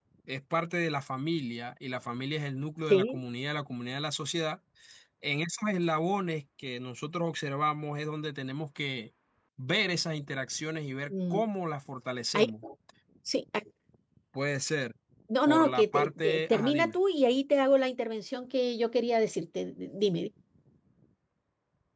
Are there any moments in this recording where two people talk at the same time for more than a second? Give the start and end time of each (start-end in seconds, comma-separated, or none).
15.5-17.0